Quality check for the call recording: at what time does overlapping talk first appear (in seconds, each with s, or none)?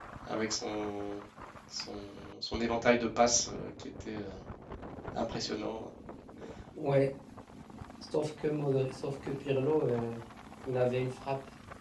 none